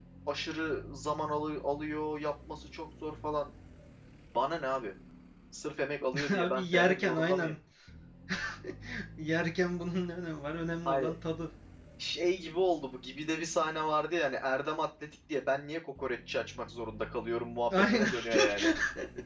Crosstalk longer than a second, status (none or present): present